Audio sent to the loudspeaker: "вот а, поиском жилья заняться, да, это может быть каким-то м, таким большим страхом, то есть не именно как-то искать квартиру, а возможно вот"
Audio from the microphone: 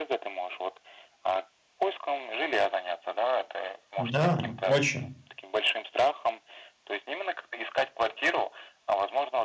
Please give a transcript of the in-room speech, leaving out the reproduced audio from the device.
Да, очень.

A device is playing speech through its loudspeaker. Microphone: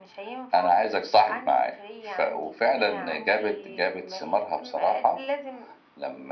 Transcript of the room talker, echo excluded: none

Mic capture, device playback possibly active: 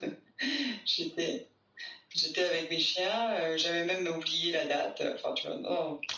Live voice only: none

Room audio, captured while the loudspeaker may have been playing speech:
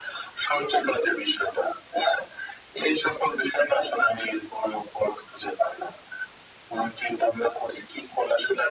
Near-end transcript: none

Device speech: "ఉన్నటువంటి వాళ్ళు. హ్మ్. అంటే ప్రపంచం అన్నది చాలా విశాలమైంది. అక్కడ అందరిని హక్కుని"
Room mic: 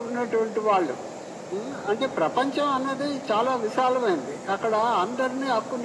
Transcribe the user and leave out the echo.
none

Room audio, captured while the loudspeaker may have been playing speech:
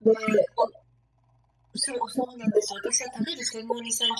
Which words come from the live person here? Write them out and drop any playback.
none

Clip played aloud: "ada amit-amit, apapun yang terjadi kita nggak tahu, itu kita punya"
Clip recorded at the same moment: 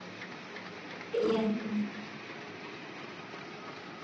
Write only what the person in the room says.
iya iya.

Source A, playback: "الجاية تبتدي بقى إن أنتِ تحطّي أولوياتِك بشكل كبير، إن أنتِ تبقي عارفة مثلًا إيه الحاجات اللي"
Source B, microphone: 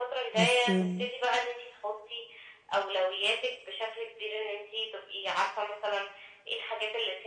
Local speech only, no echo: بس آمم،

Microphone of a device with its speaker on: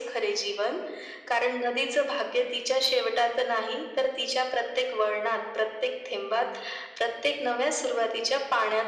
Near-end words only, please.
none

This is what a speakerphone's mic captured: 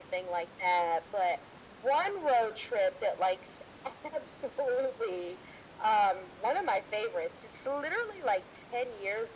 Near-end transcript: none

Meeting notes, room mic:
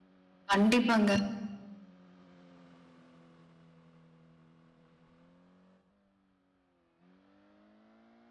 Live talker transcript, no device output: கண்டிப்பாங்க.

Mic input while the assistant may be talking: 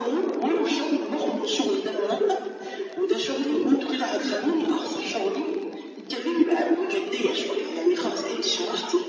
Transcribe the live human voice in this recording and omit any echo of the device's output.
none

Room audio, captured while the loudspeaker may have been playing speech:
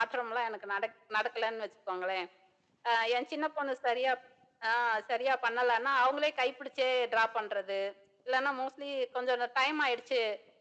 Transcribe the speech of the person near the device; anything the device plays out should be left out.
none

